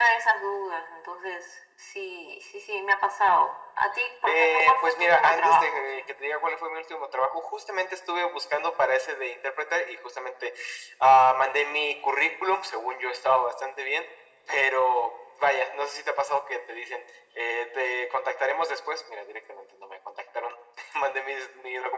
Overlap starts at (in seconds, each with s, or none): 4.3 s